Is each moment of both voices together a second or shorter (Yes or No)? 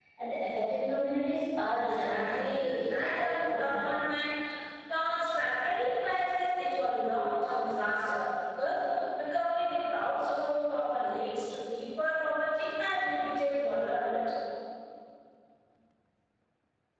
No